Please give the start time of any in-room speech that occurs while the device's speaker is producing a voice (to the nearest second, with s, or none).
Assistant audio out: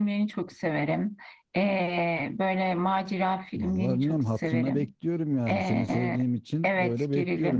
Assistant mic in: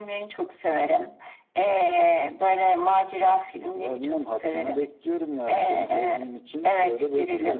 none